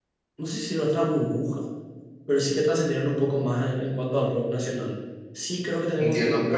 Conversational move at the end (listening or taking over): taking over